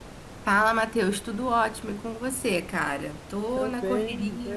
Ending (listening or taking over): taking over